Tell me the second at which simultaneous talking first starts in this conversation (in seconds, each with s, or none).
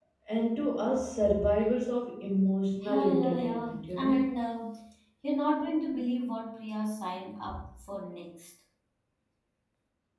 2.8 s